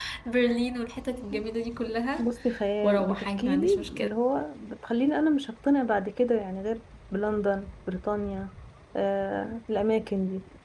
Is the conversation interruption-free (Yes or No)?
No